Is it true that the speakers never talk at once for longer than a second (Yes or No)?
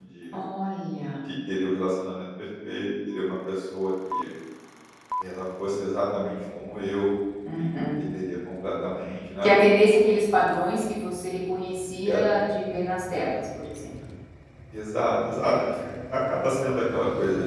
Yes